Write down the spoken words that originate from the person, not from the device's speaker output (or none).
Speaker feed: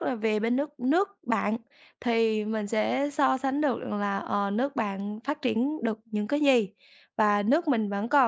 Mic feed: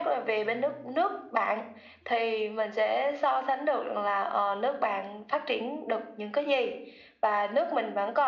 none